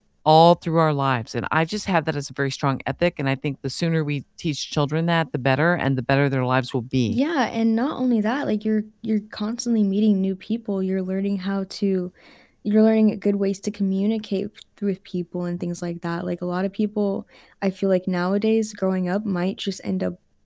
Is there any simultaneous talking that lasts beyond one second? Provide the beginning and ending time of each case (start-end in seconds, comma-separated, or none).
none